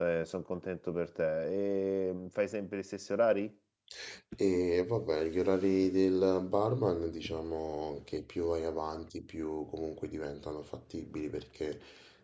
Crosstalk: none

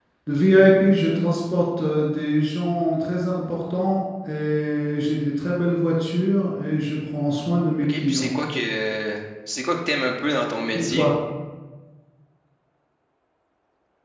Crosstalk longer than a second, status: none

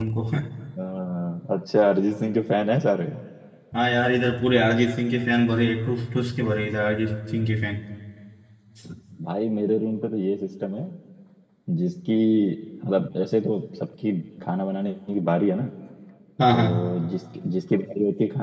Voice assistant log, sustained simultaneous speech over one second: none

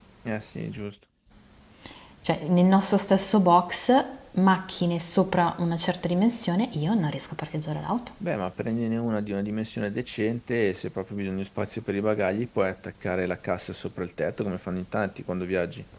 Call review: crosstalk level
none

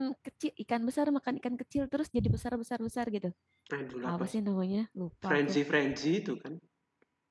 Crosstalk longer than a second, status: none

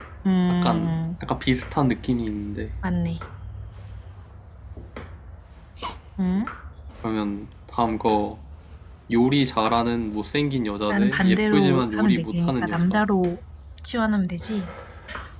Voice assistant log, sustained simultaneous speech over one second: present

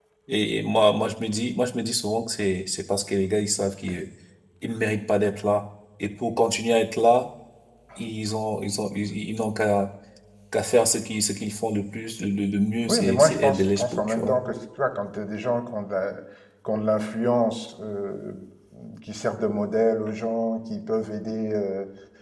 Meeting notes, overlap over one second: present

